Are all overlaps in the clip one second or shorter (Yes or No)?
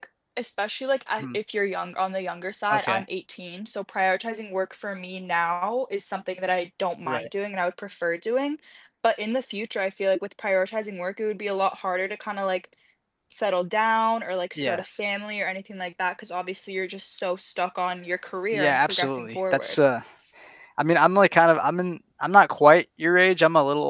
No